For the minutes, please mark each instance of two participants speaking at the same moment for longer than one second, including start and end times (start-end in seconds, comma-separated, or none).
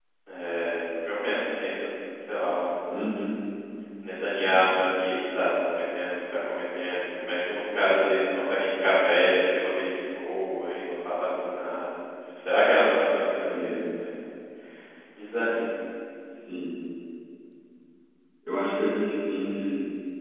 none